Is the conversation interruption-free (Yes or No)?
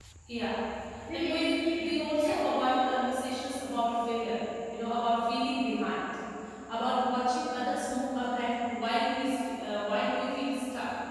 No